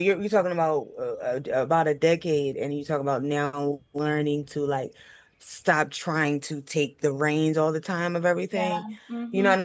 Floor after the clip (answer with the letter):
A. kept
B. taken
A